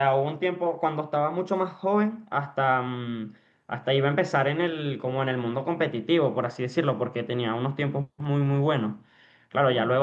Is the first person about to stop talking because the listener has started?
No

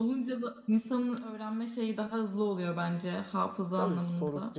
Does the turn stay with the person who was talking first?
No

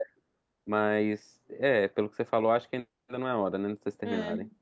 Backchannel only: No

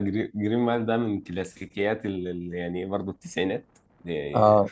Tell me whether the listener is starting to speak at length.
No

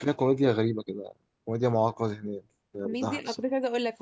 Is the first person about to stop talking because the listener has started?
Yes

